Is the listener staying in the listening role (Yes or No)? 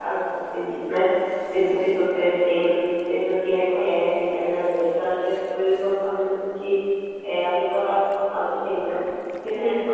Yes